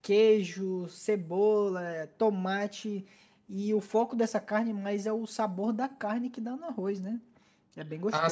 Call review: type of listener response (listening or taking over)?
taking over